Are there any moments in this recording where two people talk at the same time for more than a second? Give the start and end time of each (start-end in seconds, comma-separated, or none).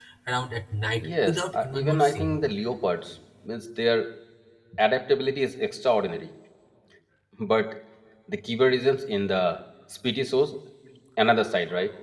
1.0-2.4